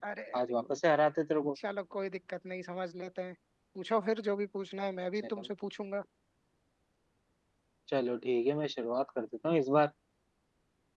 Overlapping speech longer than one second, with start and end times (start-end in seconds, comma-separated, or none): none